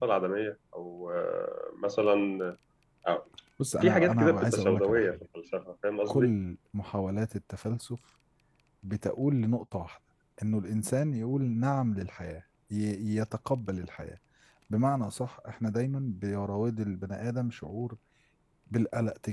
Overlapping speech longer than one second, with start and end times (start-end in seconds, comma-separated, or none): 3.8-5.2